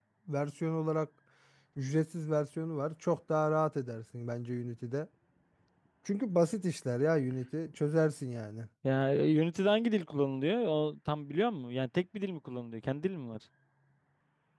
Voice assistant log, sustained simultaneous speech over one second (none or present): none